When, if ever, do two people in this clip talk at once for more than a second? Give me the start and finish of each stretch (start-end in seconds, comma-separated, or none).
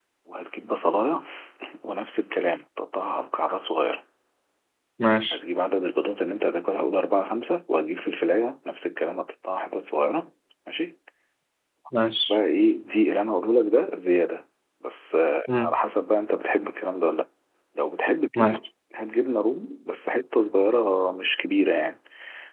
none